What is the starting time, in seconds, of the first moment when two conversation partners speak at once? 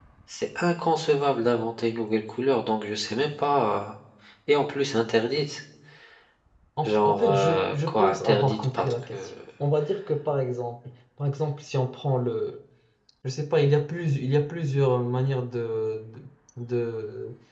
6.8 s

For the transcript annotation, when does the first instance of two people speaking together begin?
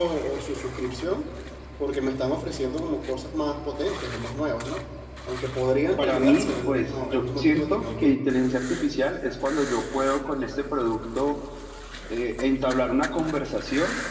5.8 s

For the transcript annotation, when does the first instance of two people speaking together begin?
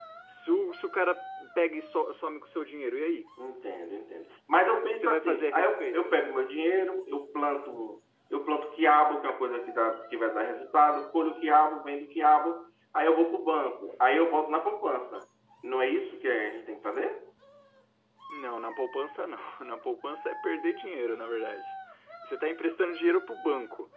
4.7 s

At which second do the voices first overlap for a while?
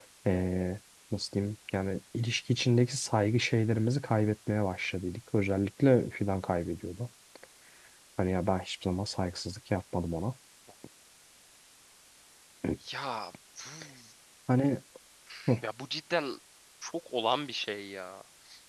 none

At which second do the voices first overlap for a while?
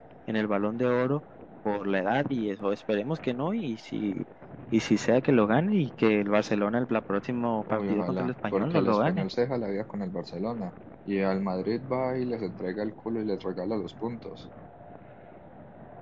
7.7 s

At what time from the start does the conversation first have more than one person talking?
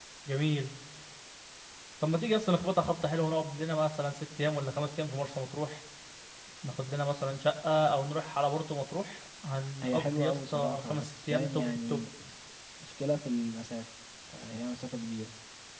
9.8 s

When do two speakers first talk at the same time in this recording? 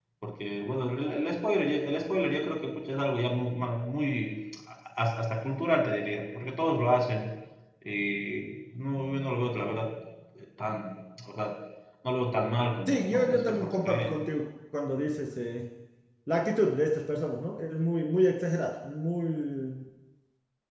12.9 s

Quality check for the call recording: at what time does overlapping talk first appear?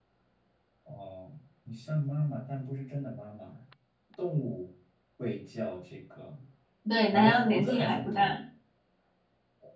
7.1 s

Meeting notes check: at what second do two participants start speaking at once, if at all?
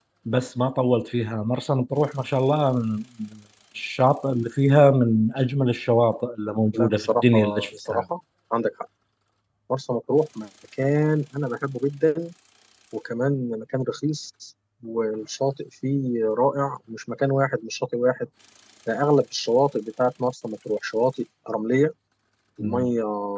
6.7 s

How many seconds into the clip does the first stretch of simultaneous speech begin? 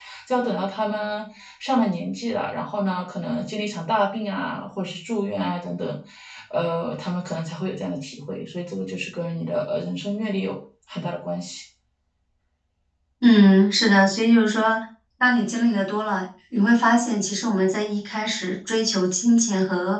none

